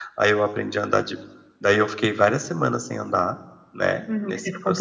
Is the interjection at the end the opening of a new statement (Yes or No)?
Yes